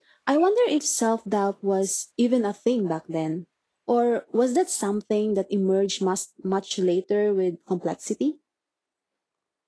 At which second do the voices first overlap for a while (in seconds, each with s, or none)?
none